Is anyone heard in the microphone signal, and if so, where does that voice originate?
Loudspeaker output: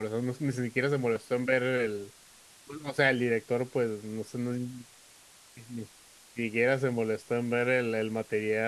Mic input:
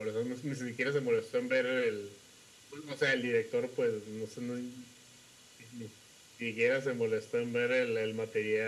echo only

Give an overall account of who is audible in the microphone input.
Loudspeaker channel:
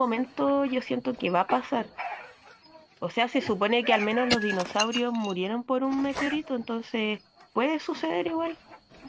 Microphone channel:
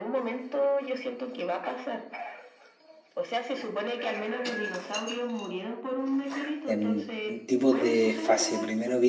both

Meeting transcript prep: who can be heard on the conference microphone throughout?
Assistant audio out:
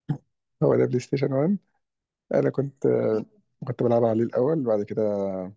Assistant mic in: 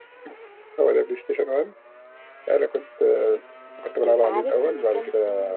both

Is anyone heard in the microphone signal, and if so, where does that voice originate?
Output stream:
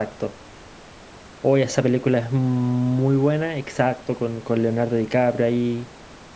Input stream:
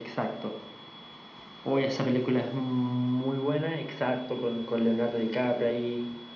echo only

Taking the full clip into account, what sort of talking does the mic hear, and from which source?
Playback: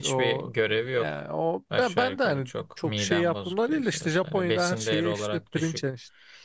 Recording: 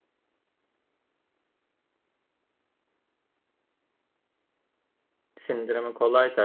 user only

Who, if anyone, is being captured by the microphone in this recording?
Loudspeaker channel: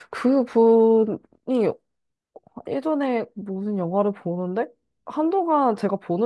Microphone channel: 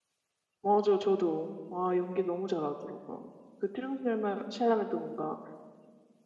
user only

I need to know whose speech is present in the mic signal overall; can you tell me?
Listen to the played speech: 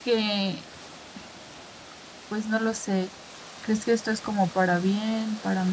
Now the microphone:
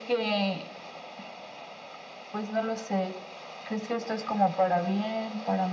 echo only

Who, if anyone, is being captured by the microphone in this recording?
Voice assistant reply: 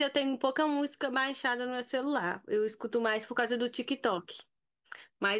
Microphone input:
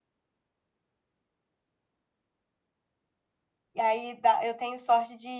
user only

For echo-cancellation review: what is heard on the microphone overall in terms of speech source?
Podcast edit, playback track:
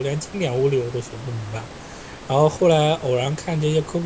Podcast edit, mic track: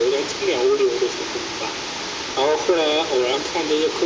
echo only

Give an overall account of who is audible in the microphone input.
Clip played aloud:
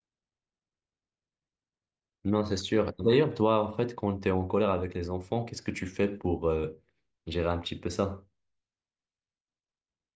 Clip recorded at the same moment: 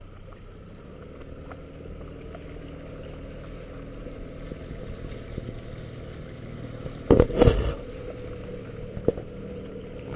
neither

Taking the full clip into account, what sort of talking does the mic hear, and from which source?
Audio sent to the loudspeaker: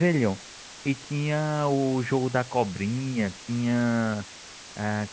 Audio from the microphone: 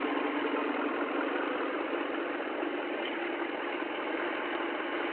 neither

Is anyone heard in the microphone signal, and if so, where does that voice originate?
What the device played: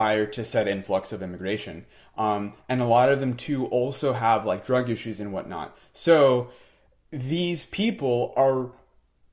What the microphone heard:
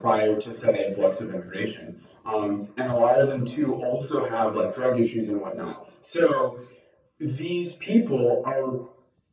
echo only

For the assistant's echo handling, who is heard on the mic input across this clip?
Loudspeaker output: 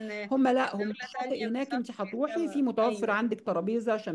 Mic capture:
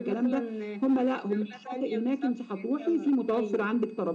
echo only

